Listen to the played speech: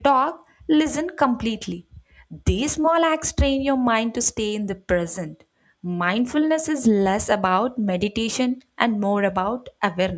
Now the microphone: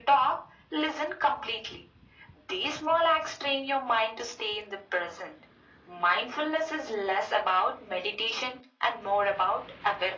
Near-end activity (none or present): none